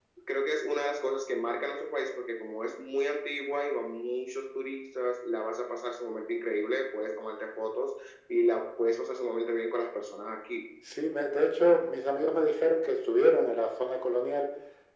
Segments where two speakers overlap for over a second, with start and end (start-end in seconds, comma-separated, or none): none